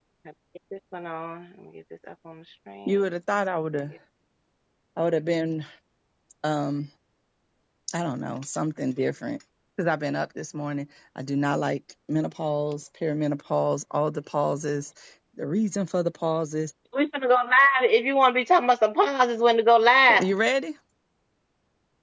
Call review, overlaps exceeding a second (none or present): none